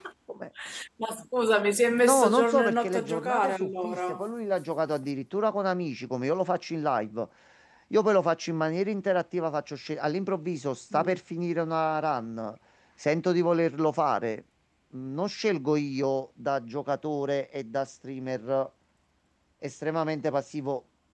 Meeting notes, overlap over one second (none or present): present